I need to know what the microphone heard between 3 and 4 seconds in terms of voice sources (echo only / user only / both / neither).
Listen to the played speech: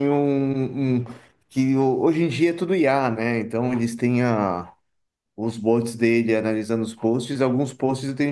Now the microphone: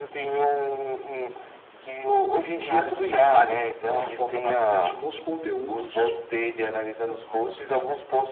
both